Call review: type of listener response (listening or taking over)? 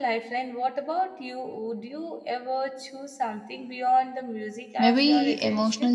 taking over